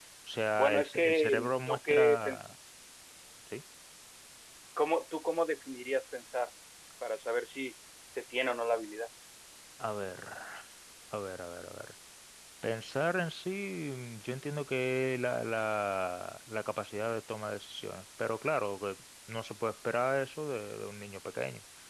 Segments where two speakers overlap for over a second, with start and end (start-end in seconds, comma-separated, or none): 0.5-2.4